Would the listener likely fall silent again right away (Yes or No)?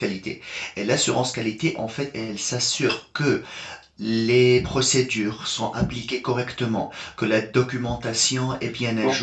No